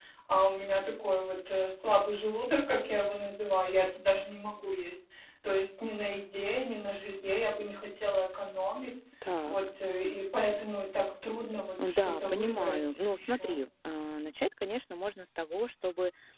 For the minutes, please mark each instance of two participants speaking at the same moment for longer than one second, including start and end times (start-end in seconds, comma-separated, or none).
11.8-13.6